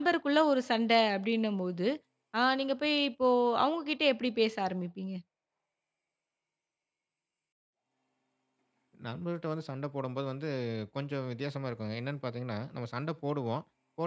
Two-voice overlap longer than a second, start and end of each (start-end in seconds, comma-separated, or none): none